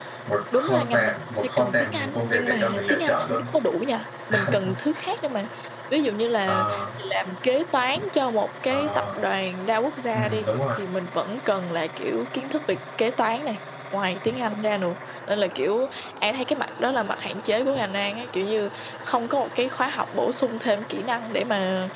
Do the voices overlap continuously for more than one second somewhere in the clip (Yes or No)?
Yes